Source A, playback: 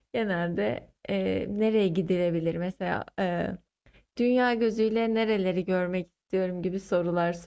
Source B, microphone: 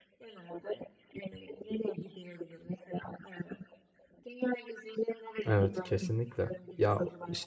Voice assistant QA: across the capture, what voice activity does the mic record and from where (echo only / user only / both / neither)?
both